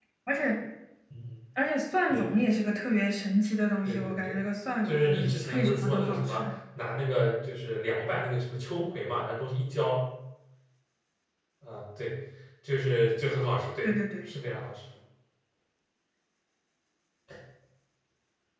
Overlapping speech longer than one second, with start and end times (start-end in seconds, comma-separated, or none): 4.8-6.4